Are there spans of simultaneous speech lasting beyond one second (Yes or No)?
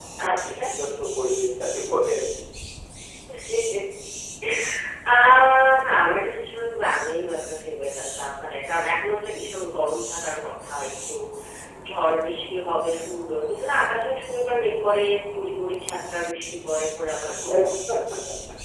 No